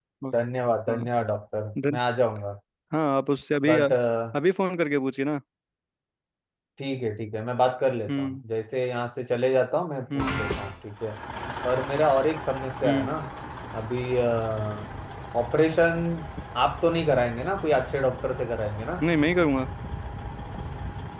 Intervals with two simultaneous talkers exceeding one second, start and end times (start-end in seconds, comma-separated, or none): none